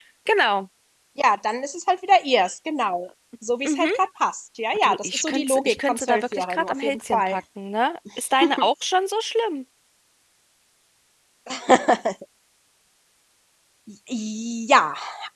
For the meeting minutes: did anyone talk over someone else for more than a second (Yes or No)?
Yes